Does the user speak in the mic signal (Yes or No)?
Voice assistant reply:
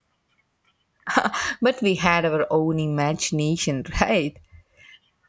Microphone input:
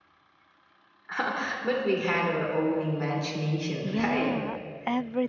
Yes